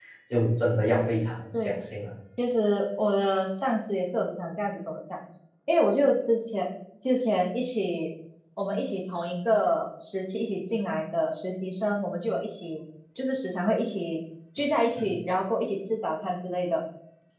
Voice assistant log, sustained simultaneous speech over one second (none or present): none